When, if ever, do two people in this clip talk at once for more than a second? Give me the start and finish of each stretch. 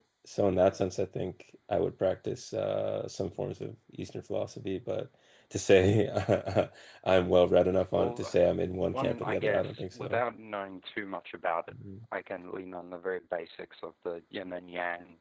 8.9-10.2

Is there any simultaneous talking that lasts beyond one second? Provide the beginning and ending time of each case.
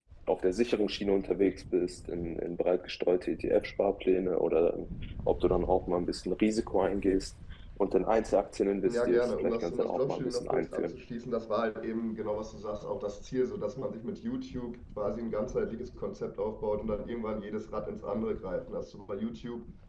8.9-10.9

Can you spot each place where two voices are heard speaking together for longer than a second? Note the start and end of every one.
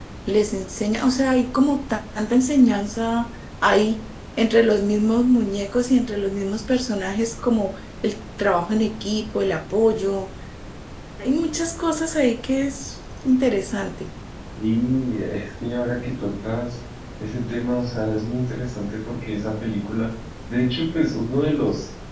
none

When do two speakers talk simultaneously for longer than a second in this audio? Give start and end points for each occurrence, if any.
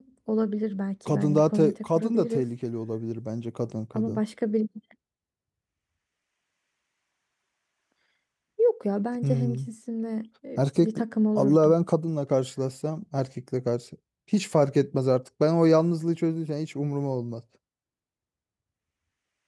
1.1-2.4

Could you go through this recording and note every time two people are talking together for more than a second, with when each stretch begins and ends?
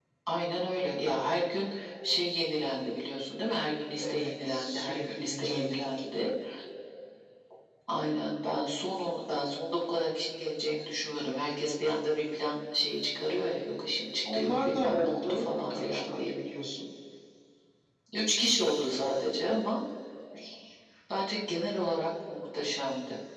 4.0-5.9, 14.3-16.3

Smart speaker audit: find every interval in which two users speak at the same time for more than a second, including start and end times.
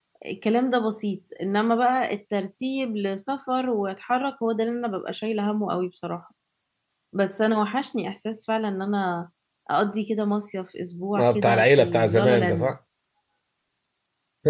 11.2-12.7

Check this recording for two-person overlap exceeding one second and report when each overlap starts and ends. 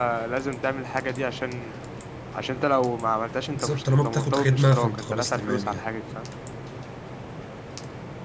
3.5-5.8

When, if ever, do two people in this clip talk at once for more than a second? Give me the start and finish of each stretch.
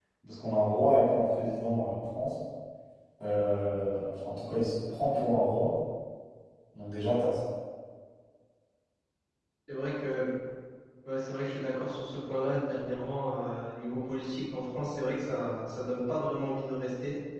none

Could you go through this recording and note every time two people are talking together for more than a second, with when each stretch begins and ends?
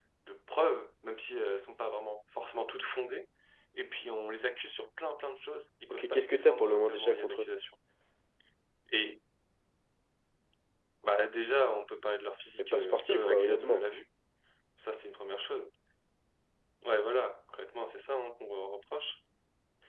5.9-7.5, 12.6-13.8

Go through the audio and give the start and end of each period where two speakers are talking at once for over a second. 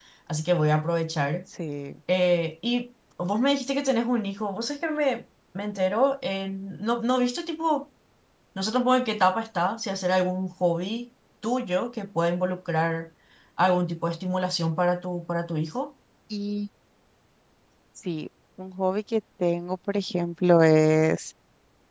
none

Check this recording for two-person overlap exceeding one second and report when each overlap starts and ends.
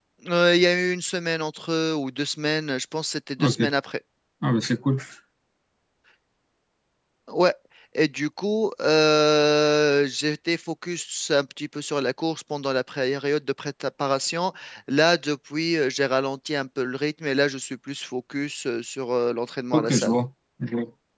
none

